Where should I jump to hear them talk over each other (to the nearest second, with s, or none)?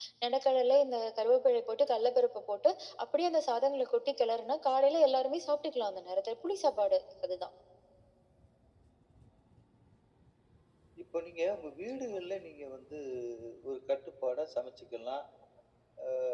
none